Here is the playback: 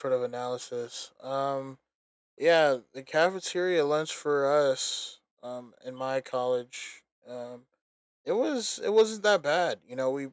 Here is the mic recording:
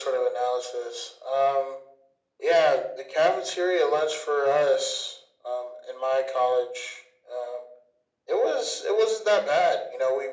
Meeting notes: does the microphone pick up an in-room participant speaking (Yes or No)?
No